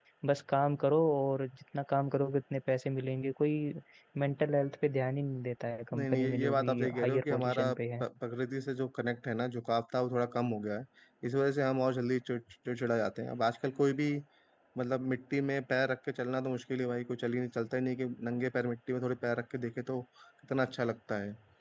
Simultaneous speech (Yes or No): Yes